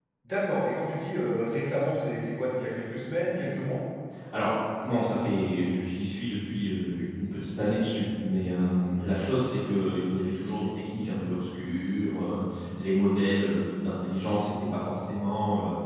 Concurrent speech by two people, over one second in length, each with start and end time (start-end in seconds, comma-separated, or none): none